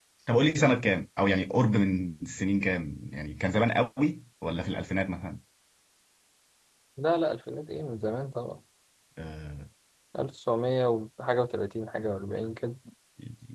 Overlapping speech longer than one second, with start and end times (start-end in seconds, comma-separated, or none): none